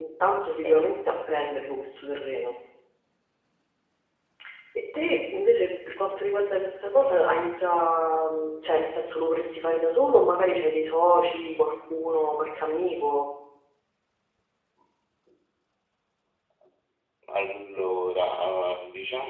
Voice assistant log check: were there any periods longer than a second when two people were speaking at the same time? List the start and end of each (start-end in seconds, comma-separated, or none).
none